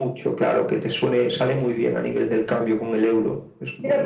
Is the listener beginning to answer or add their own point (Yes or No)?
Yes